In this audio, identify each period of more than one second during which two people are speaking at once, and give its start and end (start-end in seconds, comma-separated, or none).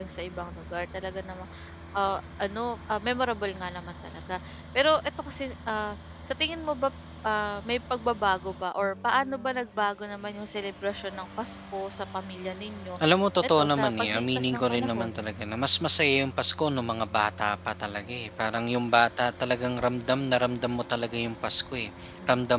13.6-15.2